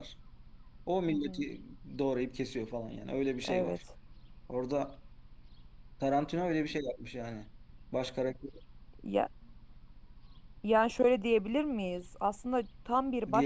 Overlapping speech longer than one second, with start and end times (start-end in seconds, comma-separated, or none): none